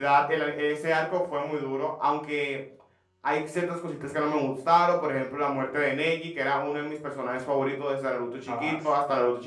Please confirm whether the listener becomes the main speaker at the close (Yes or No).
No